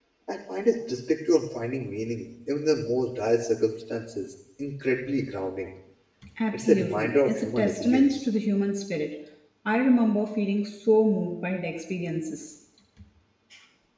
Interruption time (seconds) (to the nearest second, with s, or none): 7 s